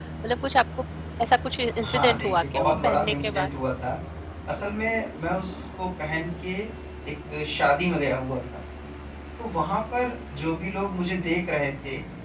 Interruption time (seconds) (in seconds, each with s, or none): 1.8 s